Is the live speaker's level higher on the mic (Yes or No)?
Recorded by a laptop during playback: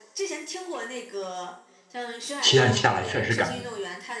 Yes